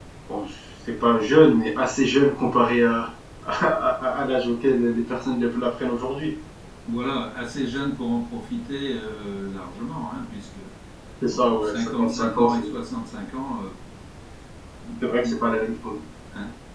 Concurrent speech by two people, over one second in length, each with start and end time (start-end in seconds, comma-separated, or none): 11.3-12.6